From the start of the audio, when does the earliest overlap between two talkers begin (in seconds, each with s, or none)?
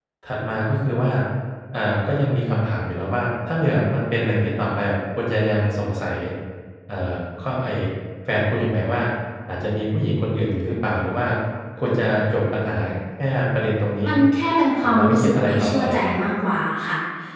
14.8 s